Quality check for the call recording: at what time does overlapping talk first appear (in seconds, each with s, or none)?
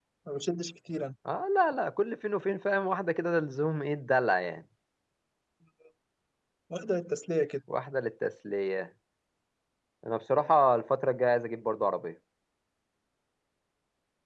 none